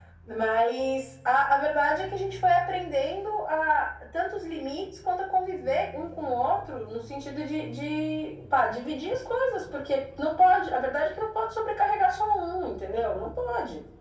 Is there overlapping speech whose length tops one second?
No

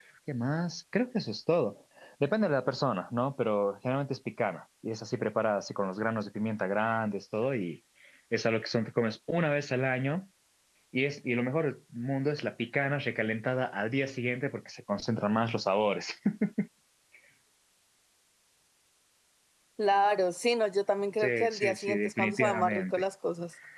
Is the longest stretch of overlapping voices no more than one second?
No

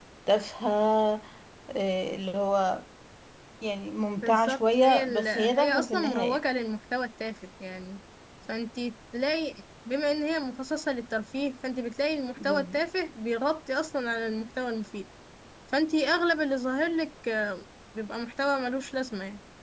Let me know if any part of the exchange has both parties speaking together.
Yes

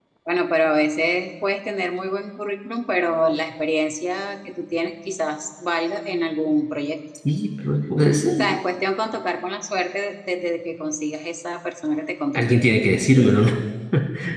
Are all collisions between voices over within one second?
Yes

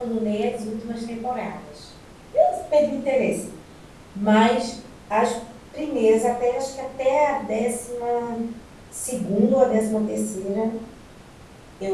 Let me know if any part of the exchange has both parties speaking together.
No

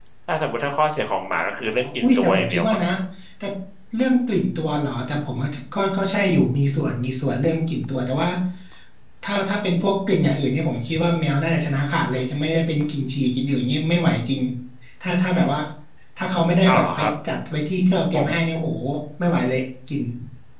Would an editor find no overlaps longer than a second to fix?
No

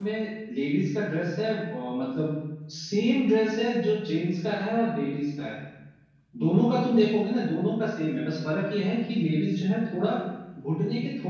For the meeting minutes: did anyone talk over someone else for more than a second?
No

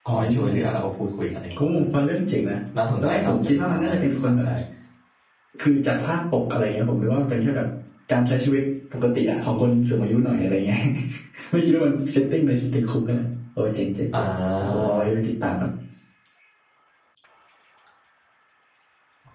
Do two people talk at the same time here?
Yes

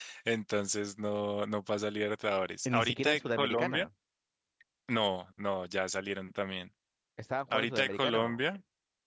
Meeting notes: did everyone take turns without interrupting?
No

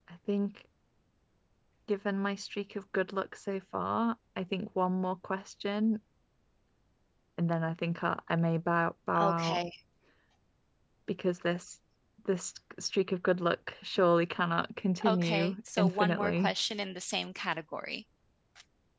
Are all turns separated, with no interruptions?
No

